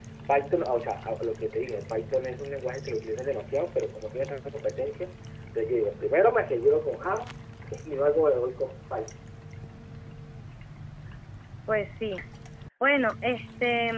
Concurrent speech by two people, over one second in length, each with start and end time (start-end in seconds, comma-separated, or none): none